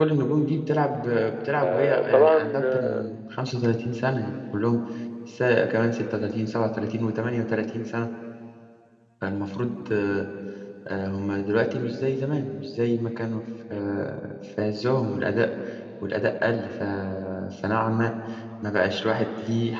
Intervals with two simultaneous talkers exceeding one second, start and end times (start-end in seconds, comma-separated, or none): 1.6-3.1